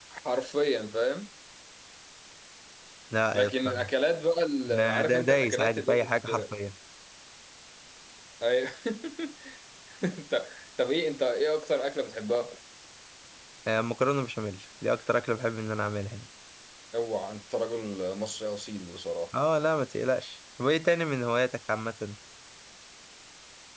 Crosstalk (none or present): present